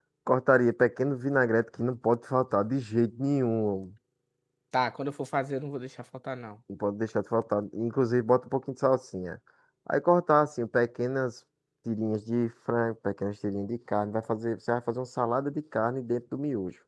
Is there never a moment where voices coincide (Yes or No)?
Yes